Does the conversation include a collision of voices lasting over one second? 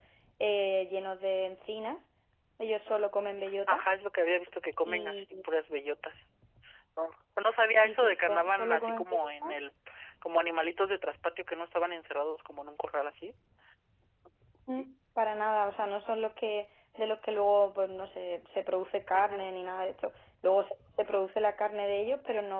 Yes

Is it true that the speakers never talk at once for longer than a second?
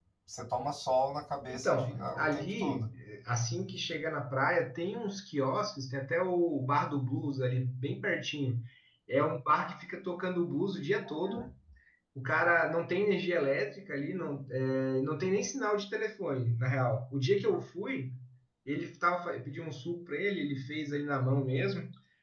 No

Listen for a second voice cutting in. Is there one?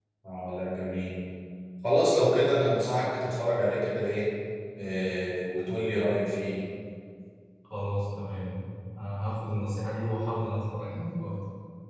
No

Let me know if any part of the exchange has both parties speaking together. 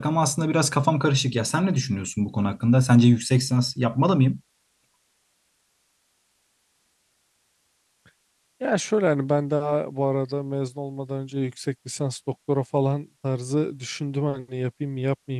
No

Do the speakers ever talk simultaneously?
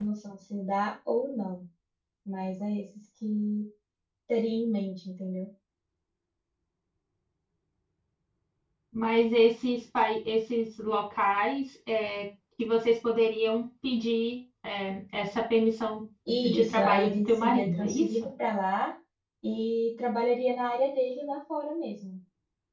Yes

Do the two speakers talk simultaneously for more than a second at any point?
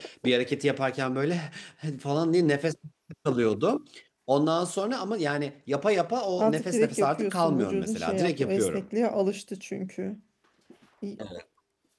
Yes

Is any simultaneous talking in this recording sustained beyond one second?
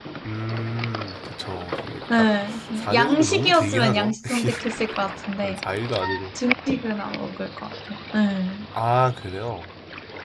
Yes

